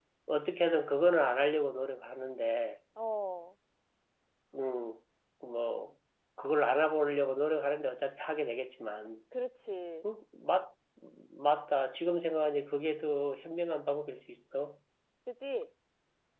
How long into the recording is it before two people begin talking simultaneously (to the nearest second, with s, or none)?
none